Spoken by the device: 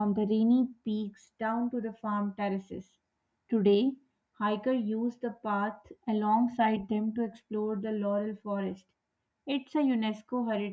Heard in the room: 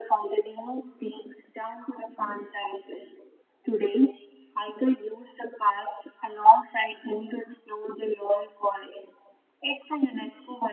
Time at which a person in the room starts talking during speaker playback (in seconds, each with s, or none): none